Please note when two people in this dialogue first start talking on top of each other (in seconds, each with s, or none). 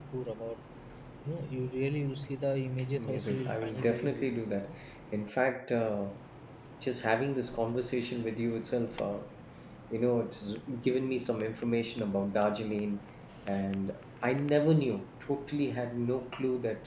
3.0 s